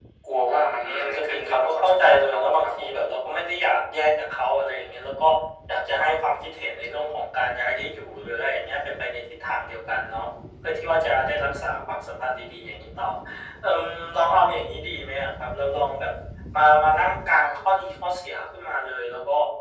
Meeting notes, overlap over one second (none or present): present